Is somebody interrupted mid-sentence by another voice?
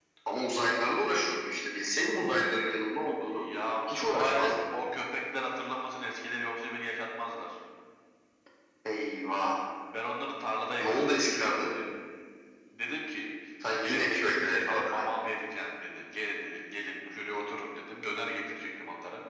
Yes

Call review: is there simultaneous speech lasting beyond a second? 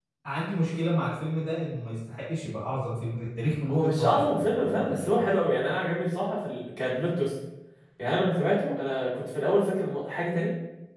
Yes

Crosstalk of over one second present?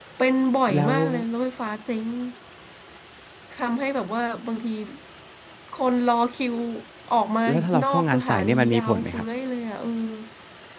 Yes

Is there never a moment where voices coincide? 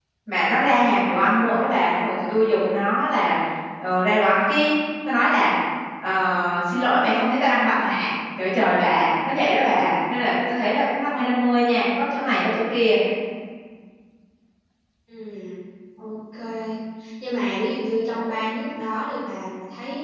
Yes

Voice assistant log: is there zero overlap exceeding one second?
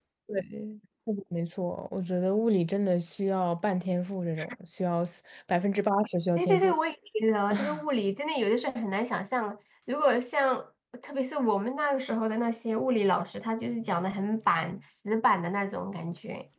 Yes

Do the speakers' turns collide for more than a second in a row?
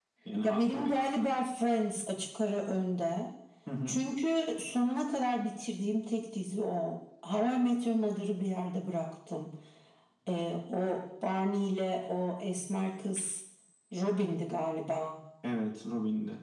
No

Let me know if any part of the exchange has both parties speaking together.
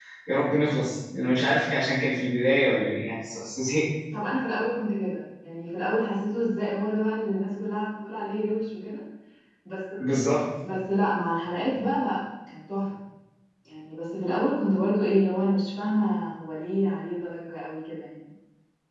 No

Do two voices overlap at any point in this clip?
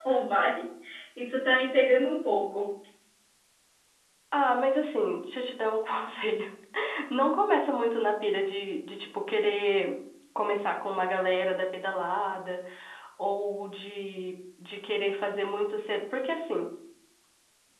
No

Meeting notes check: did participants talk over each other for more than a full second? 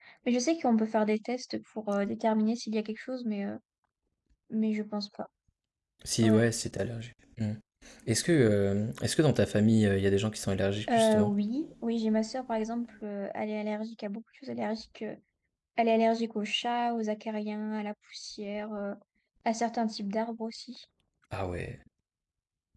No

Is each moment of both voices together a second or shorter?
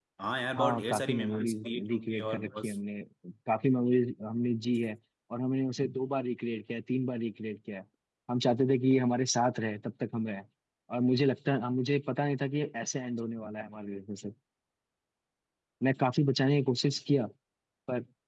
No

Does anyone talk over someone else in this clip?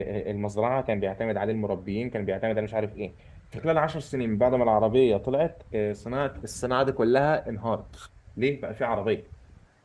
No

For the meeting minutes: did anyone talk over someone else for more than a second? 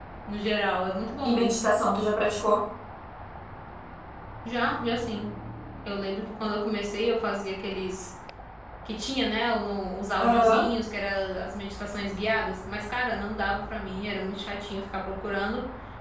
No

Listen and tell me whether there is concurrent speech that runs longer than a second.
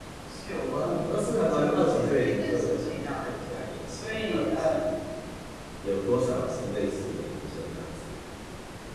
Yes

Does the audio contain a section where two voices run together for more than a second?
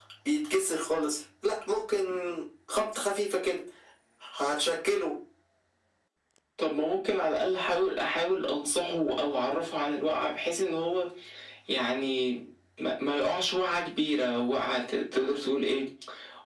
No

